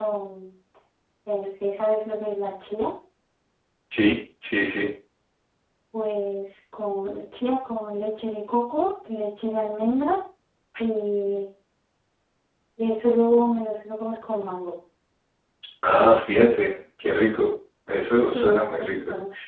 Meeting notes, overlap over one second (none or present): present